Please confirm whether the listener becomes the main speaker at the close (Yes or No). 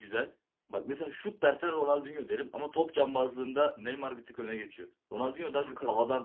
No